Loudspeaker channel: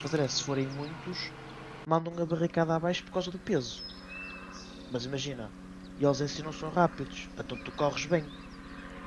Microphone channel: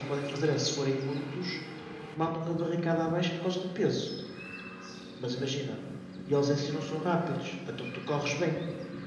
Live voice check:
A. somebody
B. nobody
B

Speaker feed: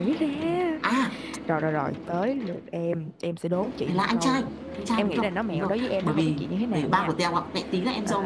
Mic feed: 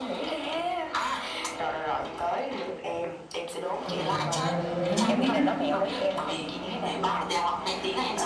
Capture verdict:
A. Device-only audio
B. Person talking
B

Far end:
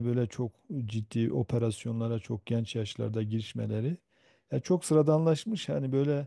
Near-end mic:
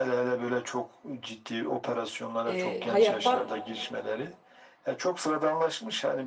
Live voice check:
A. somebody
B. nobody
A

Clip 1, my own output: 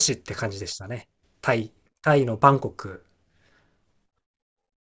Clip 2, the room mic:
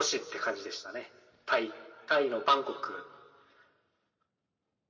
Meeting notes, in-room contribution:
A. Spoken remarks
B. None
B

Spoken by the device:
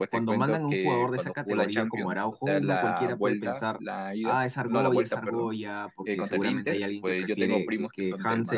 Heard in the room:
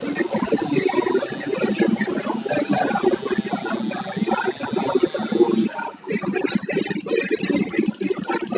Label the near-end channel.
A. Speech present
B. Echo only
B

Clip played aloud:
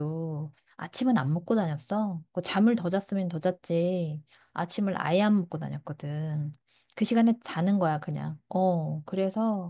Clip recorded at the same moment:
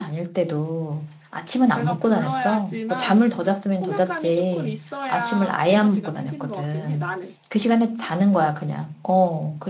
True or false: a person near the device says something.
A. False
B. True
B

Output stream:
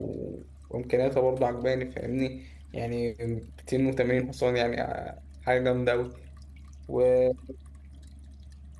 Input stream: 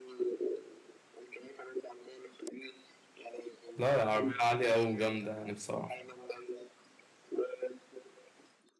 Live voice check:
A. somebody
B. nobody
A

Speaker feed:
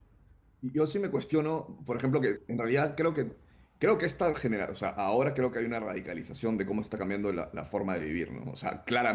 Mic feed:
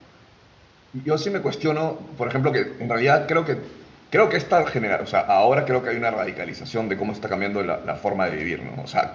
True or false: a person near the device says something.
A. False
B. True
A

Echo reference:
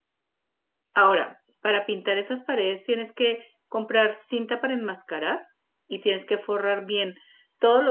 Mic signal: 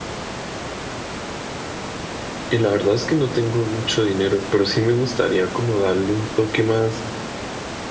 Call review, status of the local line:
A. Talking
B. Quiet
A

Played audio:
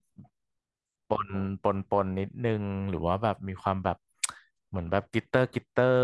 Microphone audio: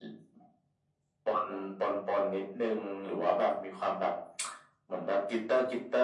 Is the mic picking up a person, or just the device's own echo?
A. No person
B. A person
A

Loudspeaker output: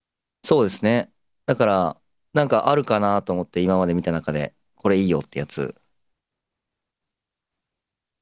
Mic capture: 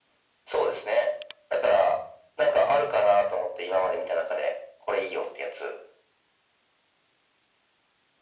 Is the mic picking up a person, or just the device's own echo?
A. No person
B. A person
A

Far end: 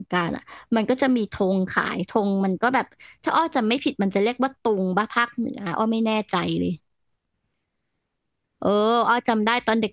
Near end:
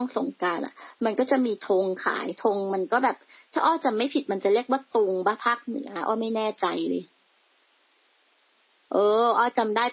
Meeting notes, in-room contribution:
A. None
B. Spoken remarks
A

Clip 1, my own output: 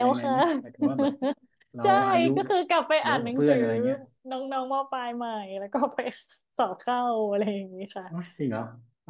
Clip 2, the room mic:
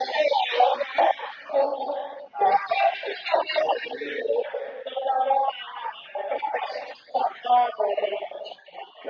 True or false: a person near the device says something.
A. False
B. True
A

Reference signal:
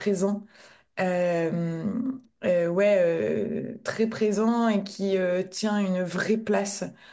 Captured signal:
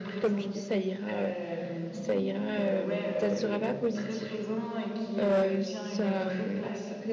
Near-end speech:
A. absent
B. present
B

